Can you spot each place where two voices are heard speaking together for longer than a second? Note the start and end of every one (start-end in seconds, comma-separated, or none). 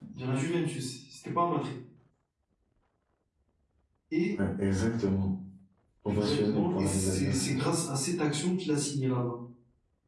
6.1-7.6